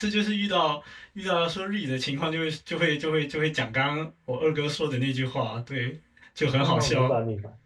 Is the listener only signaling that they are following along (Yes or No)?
No